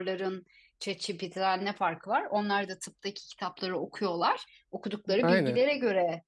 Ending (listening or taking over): listening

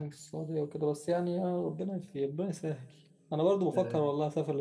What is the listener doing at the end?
listening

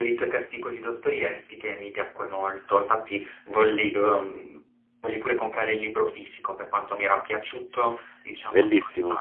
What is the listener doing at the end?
taking over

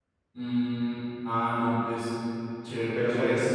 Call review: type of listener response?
taking over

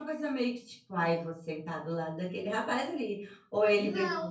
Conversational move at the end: taking over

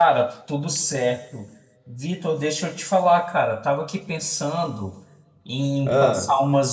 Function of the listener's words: listening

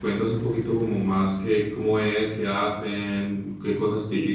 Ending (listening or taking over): taking over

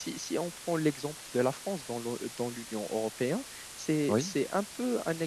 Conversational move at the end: listening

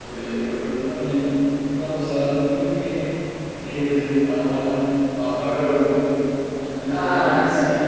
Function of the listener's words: listening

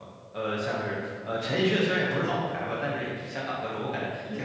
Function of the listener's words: listening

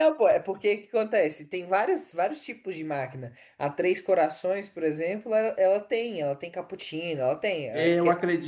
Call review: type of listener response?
taking over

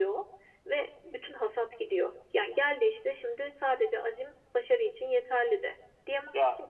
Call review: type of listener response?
listening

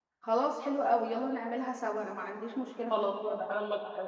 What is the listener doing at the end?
taking over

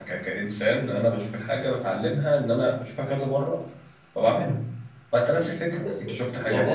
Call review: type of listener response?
taking over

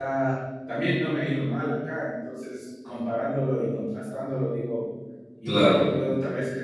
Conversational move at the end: listening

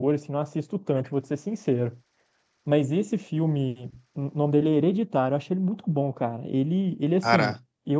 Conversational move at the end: listening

